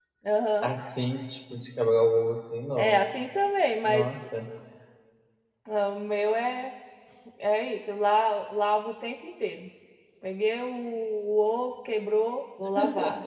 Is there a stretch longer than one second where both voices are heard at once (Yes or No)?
No